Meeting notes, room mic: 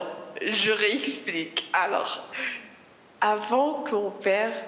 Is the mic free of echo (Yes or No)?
No